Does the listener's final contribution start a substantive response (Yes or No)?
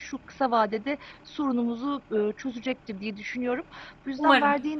No